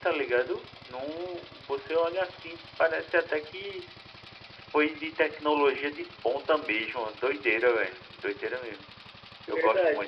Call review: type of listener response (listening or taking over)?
taking over